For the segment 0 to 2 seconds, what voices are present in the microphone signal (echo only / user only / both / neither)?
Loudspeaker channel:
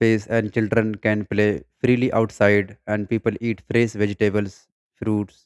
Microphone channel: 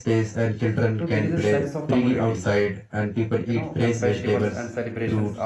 both